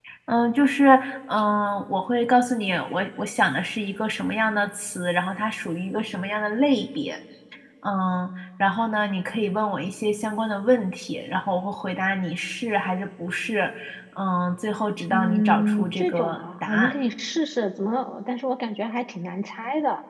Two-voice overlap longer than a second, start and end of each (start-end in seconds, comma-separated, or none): 15.1-16.9